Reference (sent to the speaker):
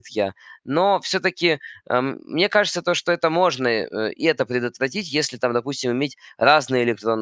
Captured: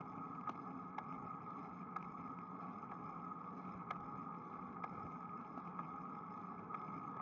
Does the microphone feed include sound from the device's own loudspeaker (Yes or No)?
No